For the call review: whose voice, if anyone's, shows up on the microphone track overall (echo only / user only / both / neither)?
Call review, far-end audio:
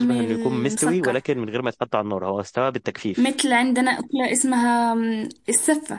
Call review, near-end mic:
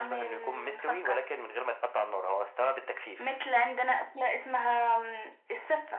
echo only